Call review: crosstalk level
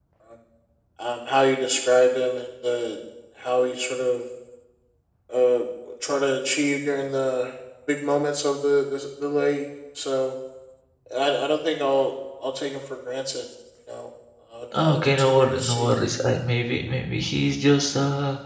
present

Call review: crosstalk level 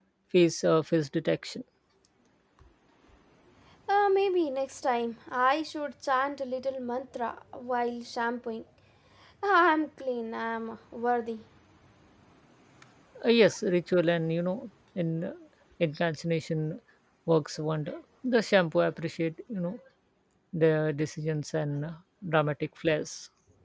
none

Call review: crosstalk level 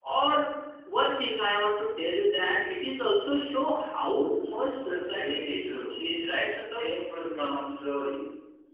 present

